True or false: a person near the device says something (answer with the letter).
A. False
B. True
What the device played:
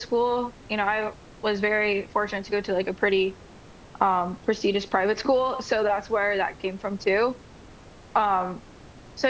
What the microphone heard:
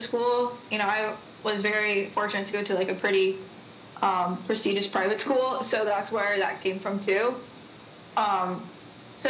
A